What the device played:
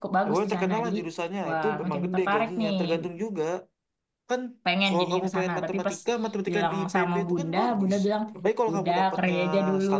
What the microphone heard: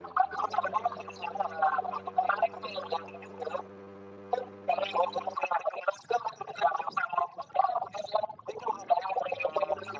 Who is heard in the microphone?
echo only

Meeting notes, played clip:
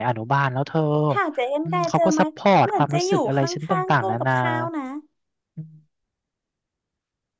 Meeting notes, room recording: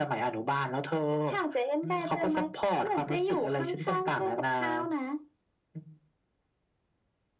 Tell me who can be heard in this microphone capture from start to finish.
echo only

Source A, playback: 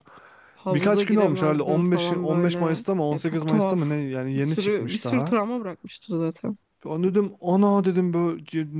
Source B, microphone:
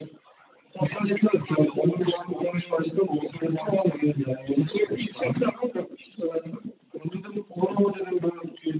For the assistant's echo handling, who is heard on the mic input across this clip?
echo only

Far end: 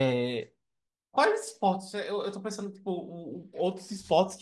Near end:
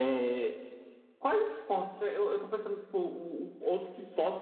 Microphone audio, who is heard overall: echo only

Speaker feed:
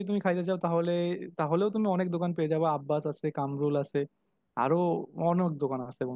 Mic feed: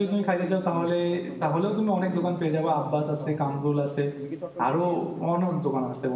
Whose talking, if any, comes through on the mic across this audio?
both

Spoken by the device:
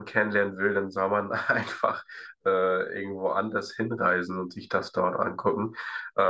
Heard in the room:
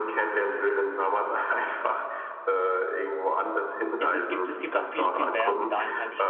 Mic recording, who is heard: both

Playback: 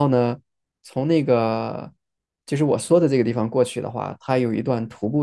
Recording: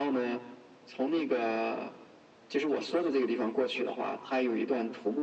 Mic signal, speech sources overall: echo only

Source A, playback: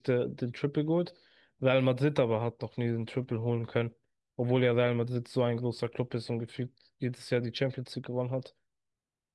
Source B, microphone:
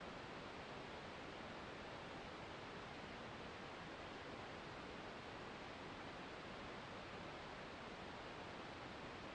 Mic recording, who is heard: neither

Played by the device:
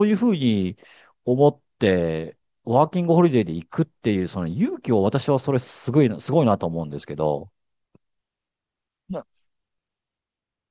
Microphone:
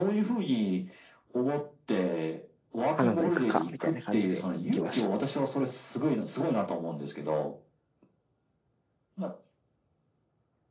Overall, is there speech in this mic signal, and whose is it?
both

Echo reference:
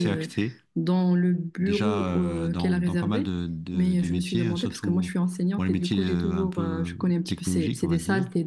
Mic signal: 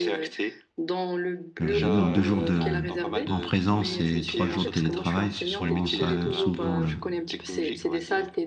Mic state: both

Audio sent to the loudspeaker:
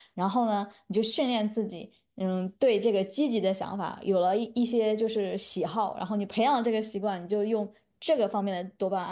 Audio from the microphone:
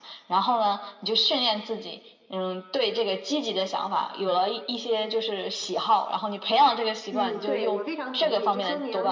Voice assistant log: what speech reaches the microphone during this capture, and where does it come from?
both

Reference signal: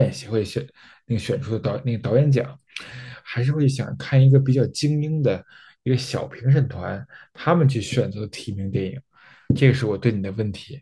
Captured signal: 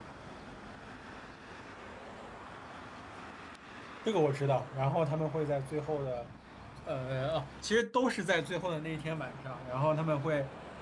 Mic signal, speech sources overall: user only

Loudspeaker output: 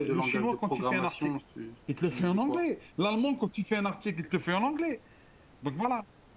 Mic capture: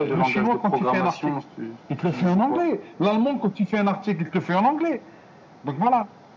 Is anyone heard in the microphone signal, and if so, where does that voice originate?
echo only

